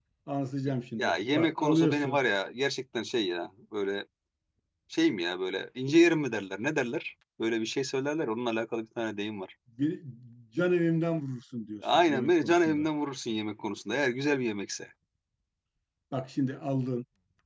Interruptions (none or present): present